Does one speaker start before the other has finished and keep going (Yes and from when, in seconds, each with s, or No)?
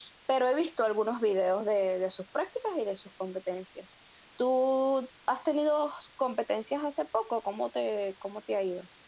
No